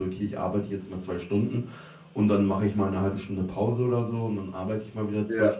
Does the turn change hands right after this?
No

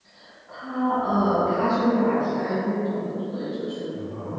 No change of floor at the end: Yes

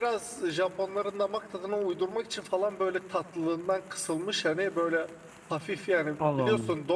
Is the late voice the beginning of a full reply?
No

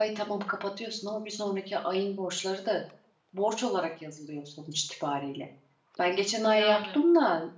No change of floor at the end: Yes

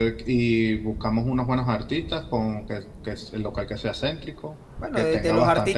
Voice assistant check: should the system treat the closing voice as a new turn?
Yes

